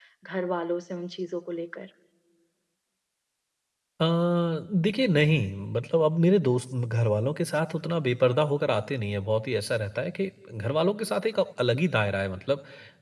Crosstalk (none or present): none